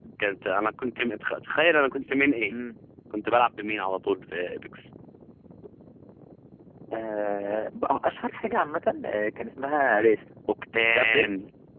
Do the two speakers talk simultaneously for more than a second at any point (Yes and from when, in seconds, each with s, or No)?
No